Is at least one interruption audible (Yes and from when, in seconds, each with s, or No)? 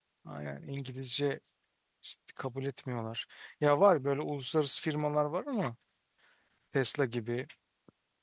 No